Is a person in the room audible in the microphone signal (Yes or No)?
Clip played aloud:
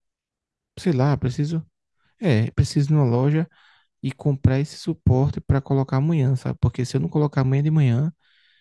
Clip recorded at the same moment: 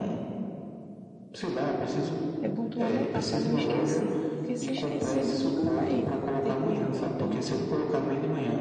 Yes